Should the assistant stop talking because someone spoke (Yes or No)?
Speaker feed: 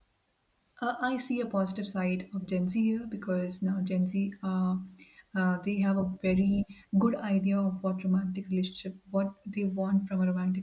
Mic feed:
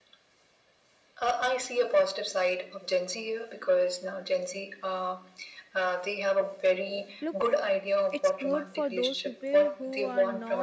Yes